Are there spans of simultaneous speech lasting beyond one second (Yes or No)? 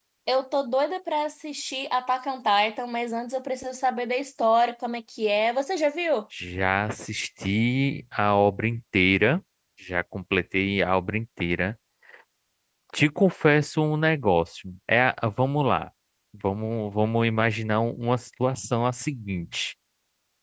No